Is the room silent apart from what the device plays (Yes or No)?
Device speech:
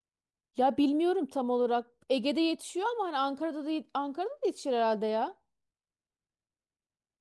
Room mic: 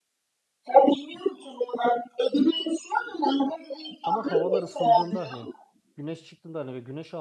No